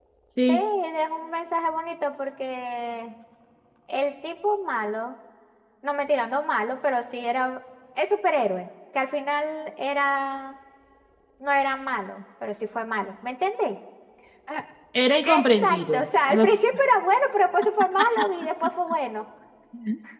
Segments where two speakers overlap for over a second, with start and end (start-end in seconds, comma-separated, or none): 15.2-16.6